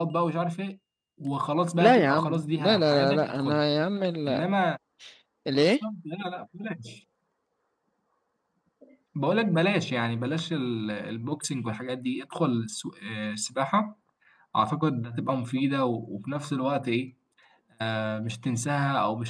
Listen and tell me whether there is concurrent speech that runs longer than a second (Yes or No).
Yes